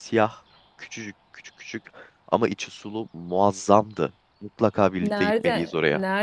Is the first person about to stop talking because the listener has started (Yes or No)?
Yes